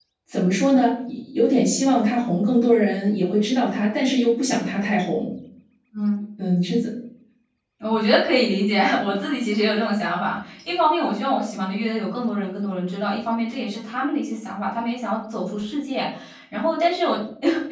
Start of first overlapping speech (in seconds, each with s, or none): none